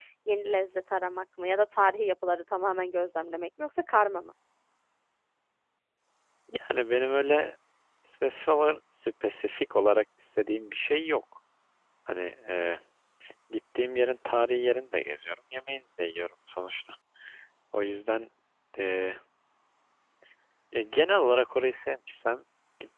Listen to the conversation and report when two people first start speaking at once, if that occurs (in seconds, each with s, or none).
none